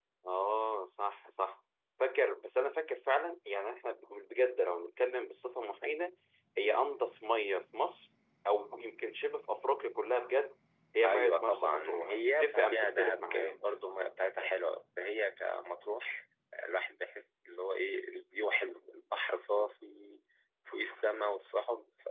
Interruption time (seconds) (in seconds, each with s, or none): 11.0 s